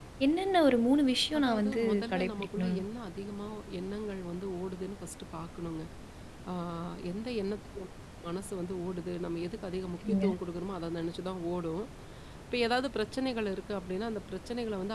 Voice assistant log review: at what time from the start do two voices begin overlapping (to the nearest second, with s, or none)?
1 s